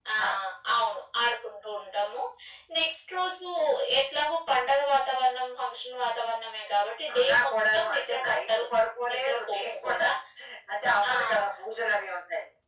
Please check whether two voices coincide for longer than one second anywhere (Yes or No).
Yes